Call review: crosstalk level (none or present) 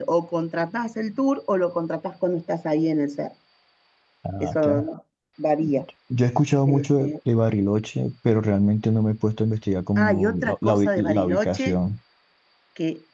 present